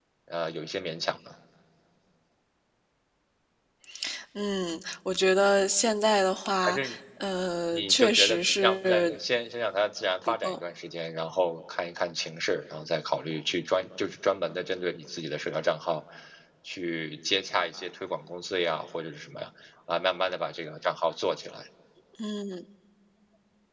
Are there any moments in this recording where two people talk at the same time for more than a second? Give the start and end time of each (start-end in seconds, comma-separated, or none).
7.7-9.1